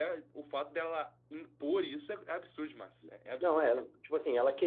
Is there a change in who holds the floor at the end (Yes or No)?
Yes